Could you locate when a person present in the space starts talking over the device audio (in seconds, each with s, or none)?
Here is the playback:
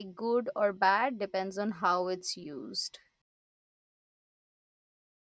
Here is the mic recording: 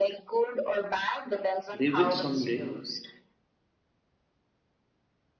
1.7 s